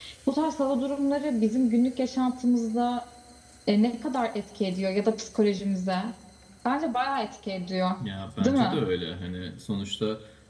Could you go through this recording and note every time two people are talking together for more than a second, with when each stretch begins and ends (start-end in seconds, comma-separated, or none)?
none